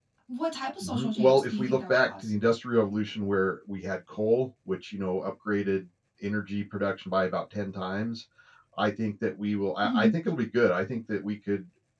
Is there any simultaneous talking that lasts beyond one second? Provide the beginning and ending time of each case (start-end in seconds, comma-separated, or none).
0.8-2.3